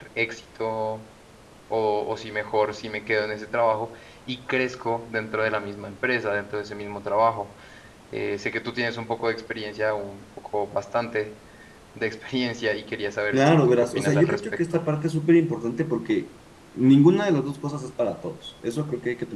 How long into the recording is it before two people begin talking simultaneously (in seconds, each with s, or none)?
13.3 s